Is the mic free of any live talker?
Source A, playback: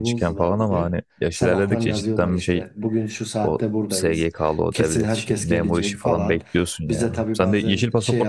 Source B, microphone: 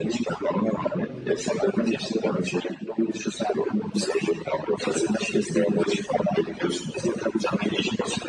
No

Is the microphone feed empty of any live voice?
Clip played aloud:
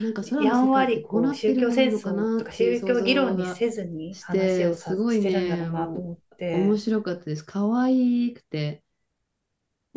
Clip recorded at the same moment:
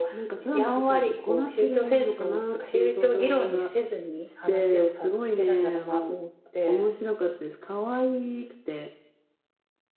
Yes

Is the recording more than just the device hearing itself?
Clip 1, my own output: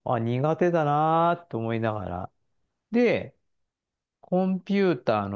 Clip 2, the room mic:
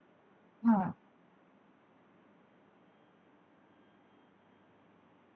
Yes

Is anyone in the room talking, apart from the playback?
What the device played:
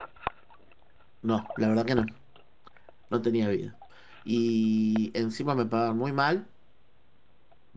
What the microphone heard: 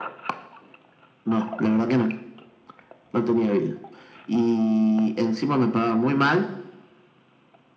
No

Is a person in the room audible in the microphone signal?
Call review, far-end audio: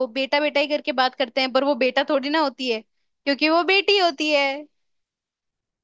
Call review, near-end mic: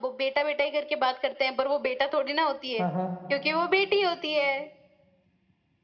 Yes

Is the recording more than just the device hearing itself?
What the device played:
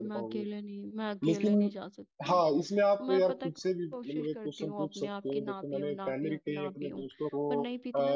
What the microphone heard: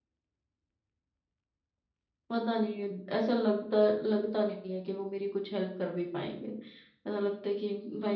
Yes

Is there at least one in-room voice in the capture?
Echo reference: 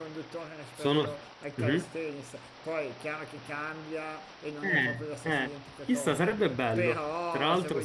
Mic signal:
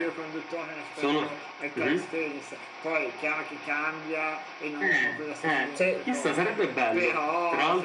Yes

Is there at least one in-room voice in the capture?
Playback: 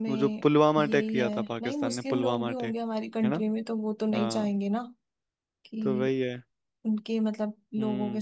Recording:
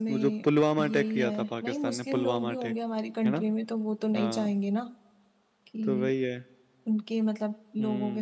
No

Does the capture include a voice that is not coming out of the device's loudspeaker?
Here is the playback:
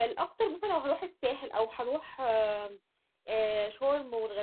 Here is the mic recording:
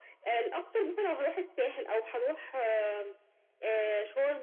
No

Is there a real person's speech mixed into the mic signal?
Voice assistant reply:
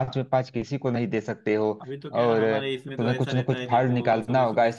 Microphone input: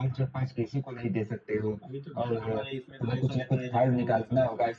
No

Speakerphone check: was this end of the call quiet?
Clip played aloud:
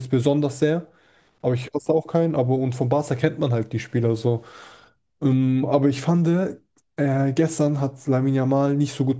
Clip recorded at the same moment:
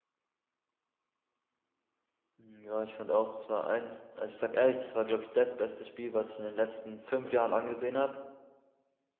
No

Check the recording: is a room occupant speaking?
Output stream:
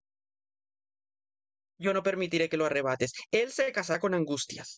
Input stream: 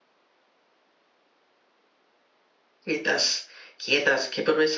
Yes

